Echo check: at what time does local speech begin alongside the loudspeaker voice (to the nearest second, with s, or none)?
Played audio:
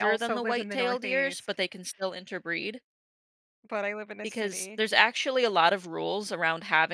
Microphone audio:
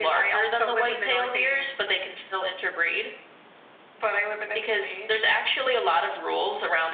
none